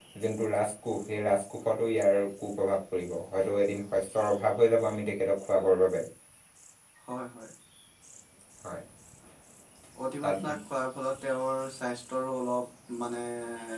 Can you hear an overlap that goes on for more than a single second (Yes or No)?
No